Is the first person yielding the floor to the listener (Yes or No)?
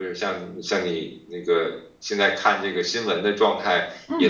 No